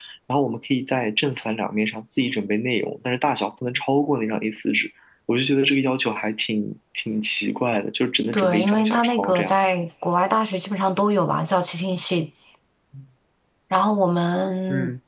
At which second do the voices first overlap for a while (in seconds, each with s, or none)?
8.3 s